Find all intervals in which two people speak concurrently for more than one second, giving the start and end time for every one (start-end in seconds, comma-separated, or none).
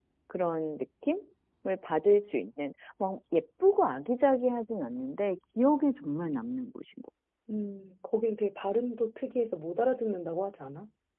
none